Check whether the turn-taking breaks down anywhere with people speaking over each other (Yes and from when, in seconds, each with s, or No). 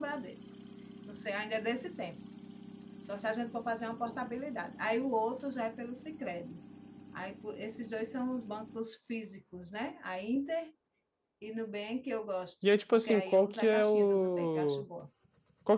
Yes, from 12.9 s